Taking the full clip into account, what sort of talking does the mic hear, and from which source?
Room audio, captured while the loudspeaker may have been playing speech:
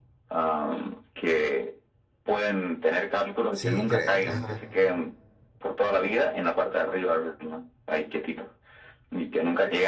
both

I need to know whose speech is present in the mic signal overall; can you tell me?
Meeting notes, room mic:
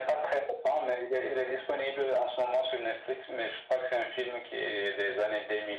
echo only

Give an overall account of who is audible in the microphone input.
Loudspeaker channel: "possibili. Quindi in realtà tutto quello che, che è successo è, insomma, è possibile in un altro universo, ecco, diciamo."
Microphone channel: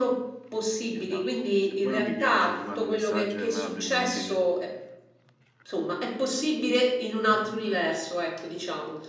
both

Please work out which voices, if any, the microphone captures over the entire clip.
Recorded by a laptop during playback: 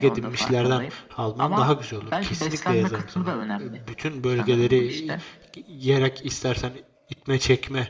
both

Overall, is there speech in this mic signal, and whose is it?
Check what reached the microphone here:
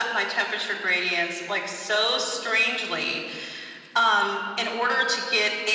echo only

